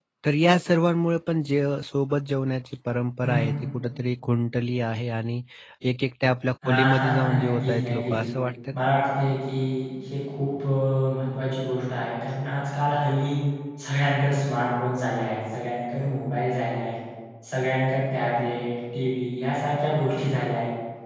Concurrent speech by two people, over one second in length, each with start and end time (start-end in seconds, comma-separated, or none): 6.7-8.2